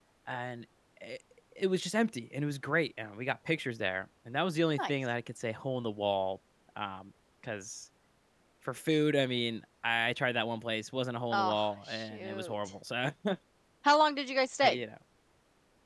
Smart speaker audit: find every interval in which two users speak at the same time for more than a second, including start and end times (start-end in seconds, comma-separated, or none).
11.3-12.5